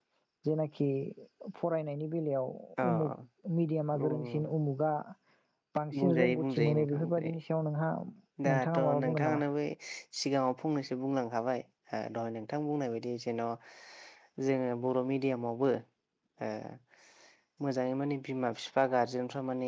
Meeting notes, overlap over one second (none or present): present